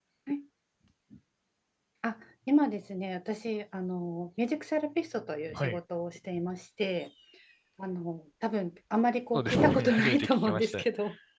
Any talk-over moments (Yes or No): Yes